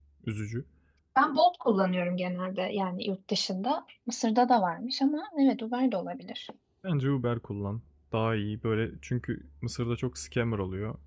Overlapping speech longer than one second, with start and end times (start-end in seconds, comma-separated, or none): none